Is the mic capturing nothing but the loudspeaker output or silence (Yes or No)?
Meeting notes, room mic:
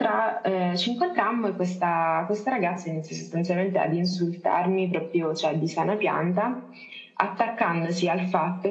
Yes